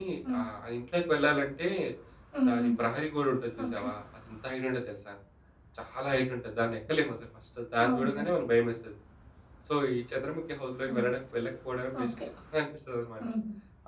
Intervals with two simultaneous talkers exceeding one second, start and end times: none

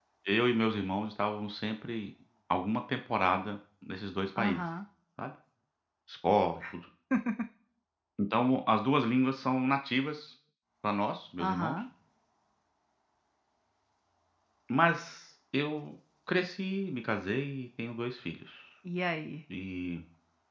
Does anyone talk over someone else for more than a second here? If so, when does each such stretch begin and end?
none

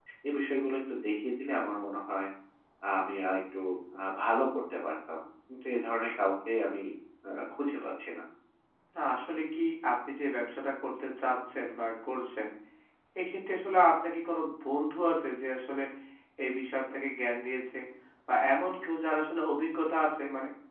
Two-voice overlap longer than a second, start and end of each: none

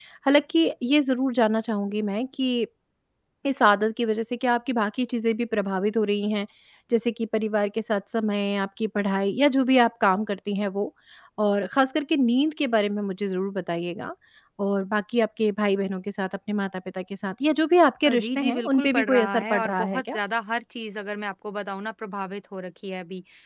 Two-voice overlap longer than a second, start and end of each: 18.1-20.2

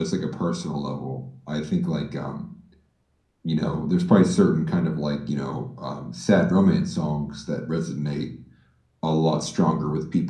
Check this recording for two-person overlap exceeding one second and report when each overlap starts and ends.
none

